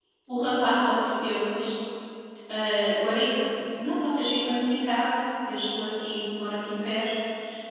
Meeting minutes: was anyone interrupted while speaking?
No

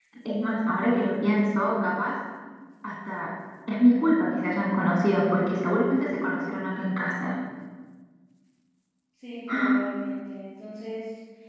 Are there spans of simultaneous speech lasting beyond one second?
No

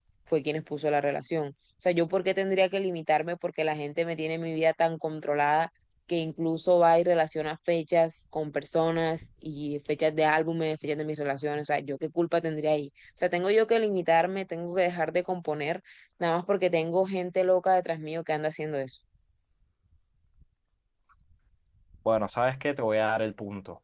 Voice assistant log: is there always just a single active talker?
Yes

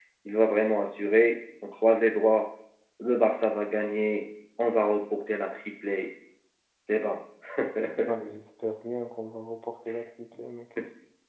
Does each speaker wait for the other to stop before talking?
Yes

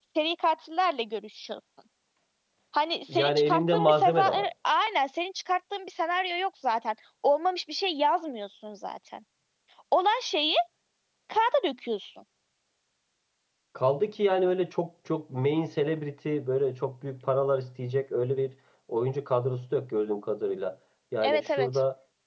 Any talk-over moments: Yes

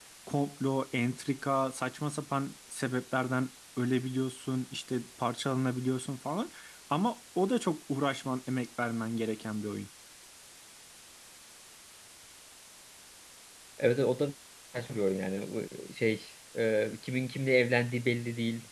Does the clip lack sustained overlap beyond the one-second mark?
Yes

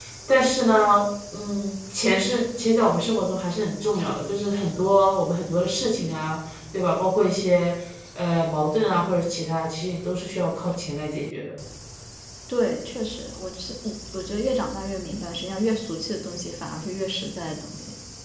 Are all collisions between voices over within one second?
Yes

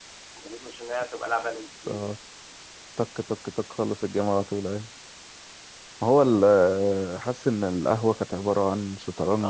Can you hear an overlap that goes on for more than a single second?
No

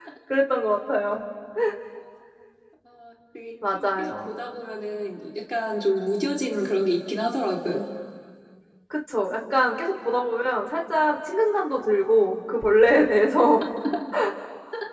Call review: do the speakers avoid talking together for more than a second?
Yes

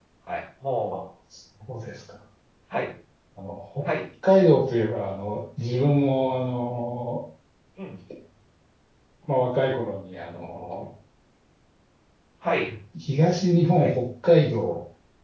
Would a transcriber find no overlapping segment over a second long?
Yes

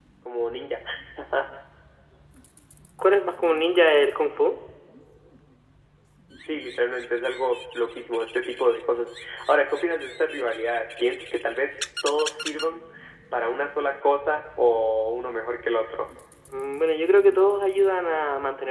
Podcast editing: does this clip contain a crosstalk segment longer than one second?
No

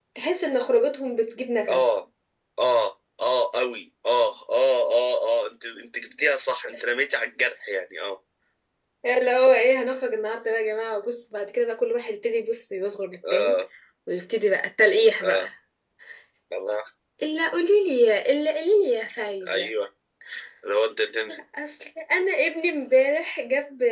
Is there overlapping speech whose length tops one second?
No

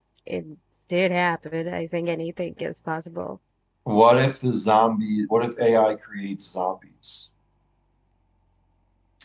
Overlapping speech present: No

